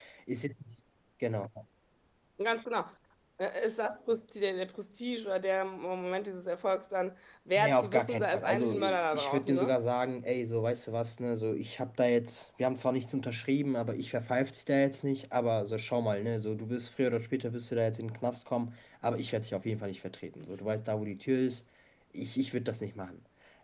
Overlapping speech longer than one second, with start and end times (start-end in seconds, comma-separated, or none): 7.6-9.7